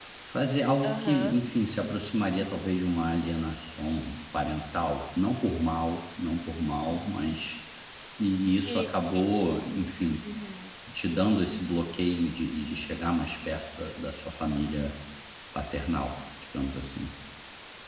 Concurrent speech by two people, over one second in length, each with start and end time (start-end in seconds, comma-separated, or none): none